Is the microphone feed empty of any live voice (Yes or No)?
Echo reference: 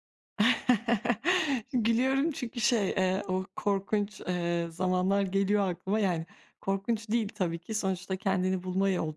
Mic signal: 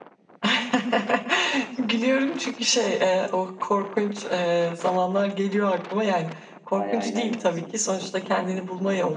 No